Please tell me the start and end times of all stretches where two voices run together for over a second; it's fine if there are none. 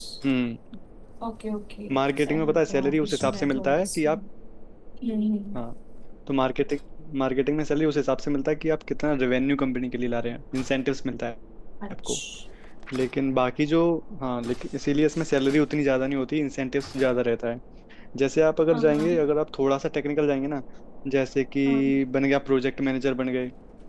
2.0-4.1

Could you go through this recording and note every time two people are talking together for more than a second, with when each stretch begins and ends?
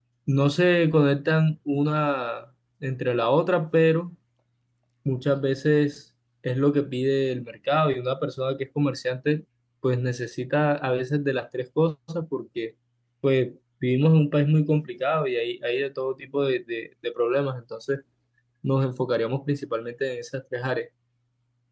none

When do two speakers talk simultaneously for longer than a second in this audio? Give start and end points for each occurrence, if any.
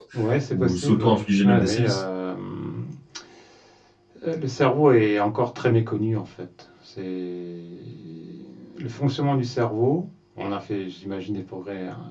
0.5-2.0

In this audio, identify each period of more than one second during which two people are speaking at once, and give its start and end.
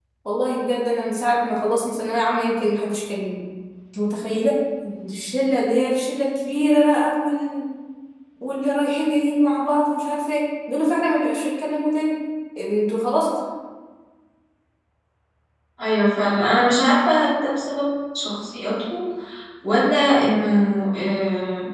none

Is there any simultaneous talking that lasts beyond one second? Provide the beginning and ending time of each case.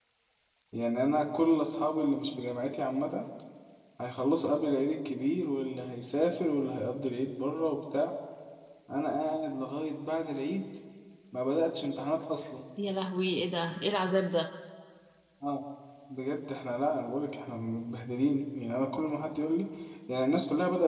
none

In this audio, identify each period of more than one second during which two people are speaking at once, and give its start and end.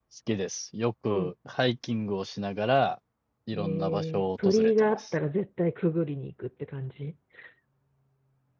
3.5-5.0

